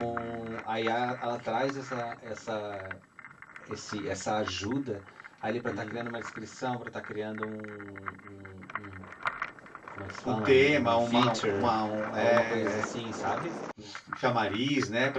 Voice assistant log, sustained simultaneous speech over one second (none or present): present